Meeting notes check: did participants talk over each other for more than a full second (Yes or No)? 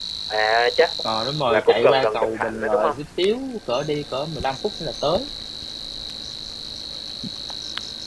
Yes